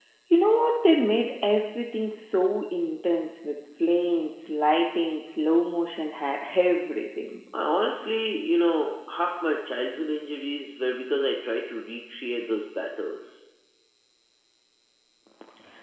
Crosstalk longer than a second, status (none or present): none